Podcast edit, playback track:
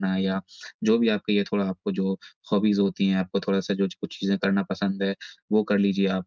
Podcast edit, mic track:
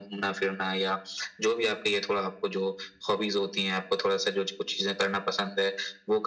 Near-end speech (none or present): none